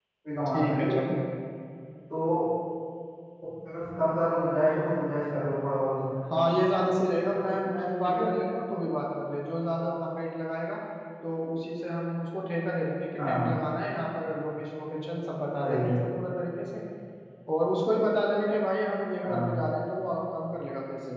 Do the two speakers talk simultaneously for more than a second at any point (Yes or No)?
No